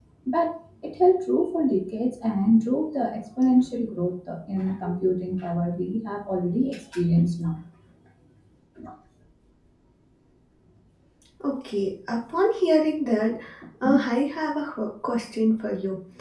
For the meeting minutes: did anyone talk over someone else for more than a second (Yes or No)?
No